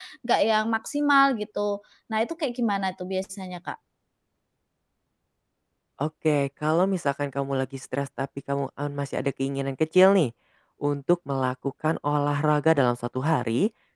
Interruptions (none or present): none